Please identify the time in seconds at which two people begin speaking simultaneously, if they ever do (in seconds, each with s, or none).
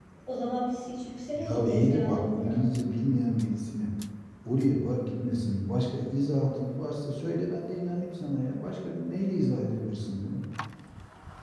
1.4 s